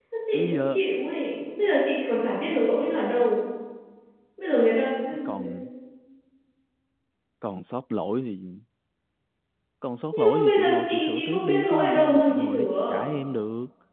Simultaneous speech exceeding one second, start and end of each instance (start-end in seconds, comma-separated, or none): 10.1-13.1